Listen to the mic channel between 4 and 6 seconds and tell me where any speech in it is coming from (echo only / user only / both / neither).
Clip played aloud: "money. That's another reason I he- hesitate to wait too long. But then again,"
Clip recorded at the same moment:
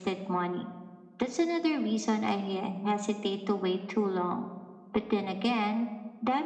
echo only